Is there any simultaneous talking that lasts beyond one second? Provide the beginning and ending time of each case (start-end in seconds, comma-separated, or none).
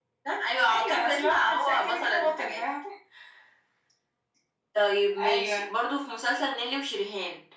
0.7-2.6